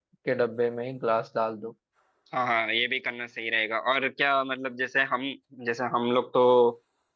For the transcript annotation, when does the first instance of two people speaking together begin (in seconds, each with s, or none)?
none